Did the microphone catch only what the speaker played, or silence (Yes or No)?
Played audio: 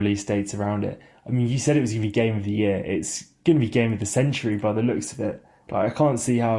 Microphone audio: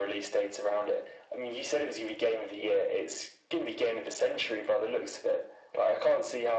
Yes